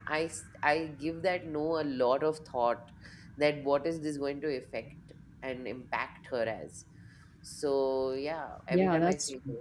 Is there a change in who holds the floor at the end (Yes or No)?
Yes